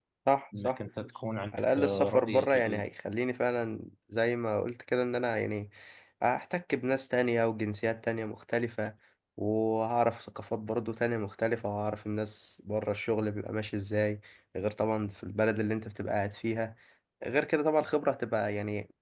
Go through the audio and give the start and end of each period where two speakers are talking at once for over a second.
1.5-2.8

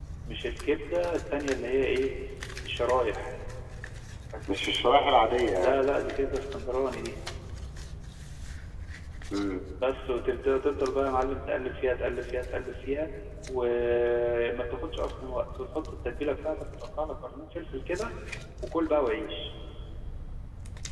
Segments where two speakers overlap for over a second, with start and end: none

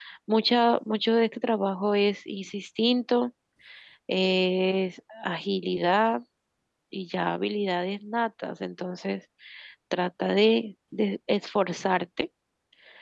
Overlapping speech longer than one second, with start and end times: none

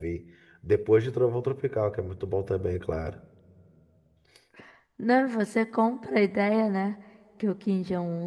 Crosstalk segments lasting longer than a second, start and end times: none

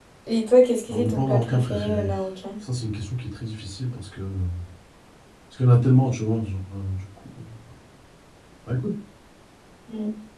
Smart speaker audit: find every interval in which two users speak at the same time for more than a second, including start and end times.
0.9-2.1

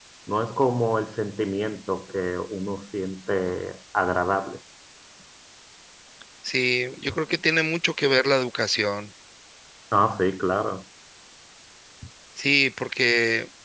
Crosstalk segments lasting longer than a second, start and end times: none

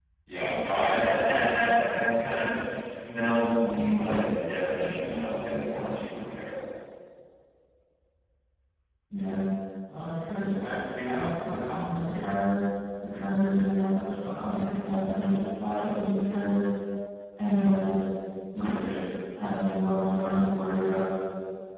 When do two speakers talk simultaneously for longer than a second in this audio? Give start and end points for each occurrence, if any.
none

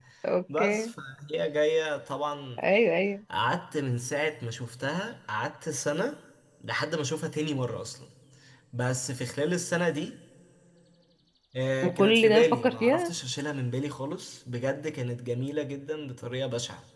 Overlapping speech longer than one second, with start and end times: 11.8-13.1

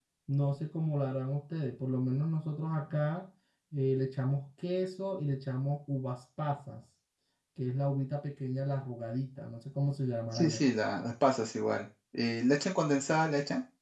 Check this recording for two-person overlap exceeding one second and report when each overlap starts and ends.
none

